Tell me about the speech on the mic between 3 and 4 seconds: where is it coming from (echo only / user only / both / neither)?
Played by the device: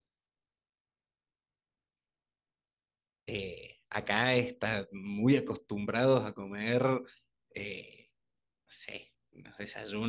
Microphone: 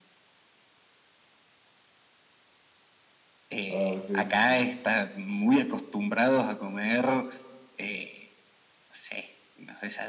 both